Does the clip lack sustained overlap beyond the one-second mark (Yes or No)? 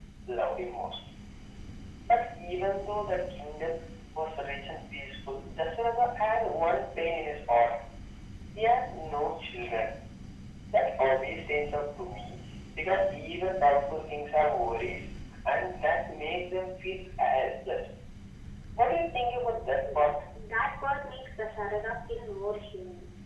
Yes